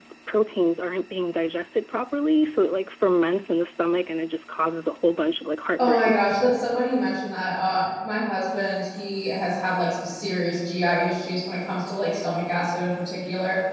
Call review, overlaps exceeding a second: none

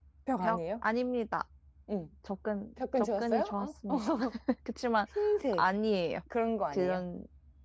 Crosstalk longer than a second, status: present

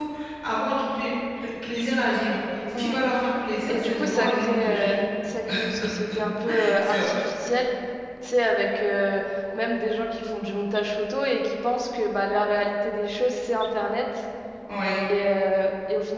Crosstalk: present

